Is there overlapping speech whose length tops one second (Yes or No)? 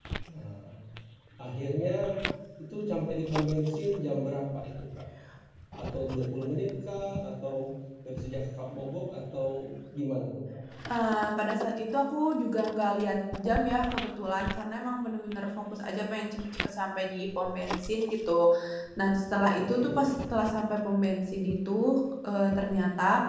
No